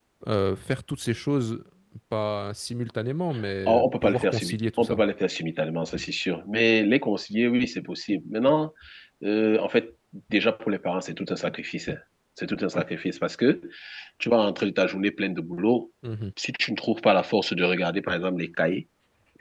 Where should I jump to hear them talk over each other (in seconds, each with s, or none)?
3.7 s